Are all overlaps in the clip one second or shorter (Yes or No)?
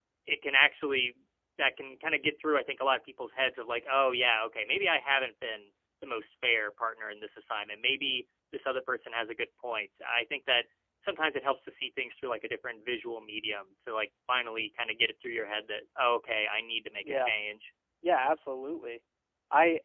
Yes